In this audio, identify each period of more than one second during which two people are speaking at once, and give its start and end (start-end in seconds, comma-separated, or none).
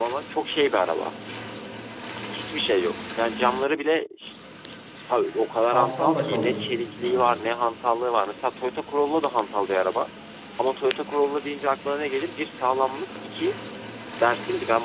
5.7-7.3